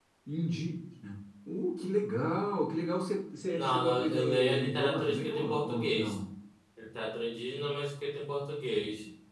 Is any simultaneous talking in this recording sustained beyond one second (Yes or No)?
Yes